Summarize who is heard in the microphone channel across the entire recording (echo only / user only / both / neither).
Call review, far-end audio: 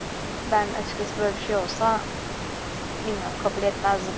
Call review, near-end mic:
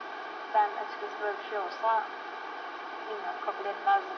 echo only